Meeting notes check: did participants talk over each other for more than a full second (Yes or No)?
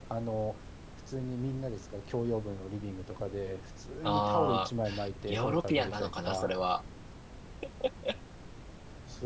Yes